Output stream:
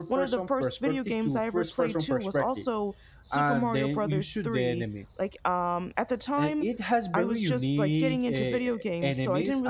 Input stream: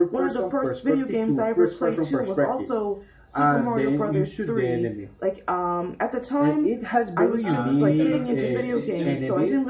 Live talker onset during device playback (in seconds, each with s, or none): 7.4 s